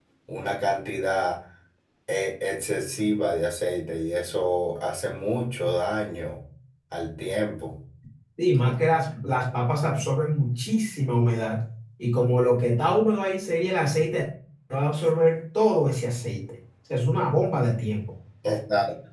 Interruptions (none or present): none